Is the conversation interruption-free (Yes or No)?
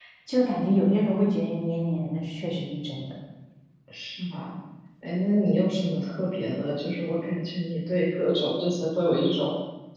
Yes